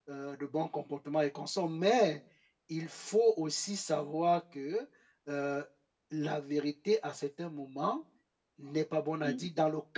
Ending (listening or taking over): listening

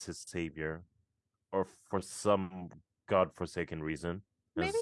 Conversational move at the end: taking over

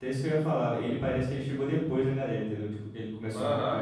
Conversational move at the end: taking over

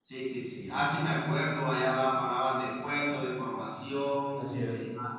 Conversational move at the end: listening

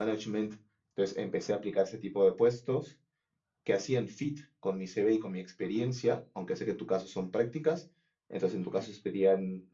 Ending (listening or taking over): listening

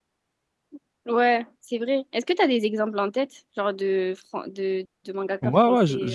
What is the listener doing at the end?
taking over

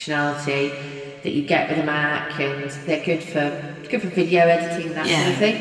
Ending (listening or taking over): listening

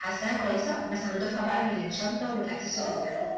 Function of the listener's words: taking over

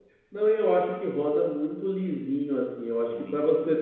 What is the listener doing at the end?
listening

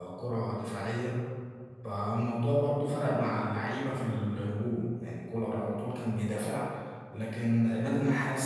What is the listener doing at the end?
listening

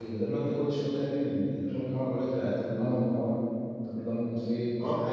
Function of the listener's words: taking over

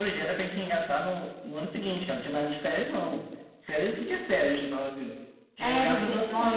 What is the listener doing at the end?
taking over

